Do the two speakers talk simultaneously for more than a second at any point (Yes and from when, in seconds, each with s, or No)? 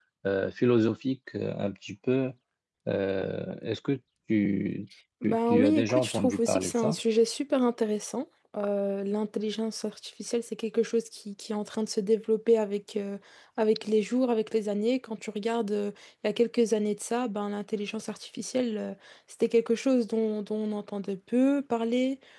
Yes, from 5.2 s